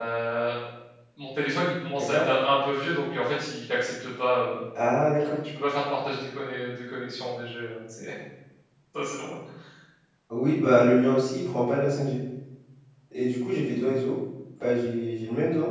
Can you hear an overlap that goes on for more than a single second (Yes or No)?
No